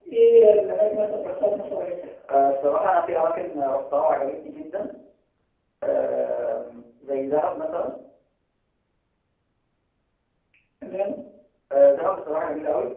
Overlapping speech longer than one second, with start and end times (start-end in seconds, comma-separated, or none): none